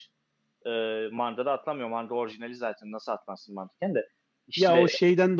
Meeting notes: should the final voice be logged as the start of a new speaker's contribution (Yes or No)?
Yes